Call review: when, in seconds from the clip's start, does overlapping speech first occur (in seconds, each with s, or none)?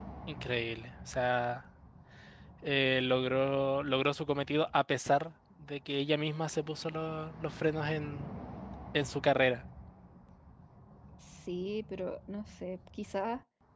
none